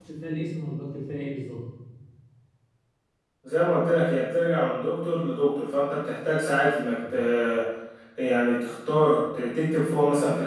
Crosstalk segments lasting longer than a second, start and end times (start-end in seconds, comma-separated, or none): none